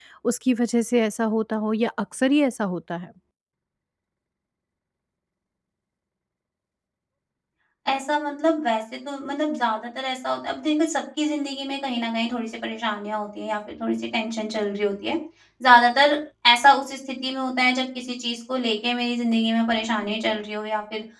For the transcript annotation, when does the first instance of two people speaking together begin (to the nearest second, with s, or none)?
none